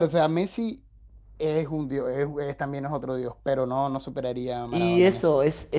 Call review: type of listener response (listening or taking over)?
taking over